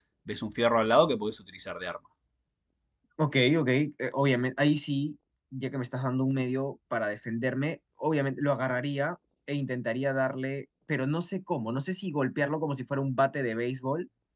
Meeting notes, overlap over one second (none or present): none